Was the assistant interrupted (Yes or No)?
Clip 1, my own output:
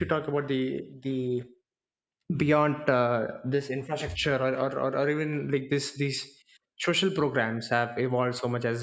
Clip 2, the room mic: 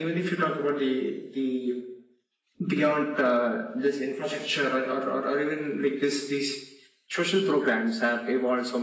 No